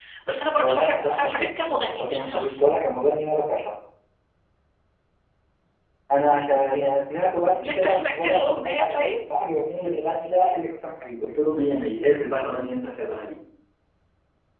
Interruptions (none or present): present